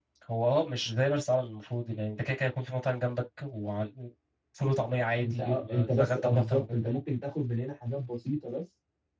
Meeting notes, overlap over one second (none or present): present